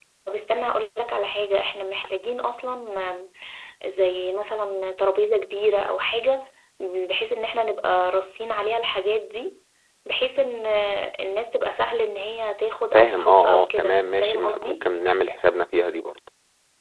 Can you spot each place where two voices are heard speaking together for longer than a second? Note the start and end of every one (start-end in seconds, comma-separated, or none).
12.9-14.9